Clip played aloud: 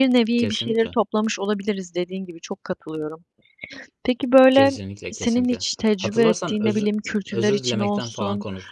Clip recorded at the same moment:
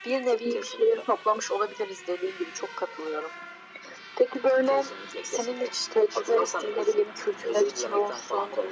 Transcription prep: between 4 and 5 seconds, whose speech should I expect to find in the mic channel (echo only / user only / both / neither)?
echo only